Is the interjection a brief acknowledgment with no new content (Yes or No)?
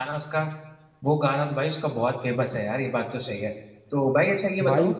Yes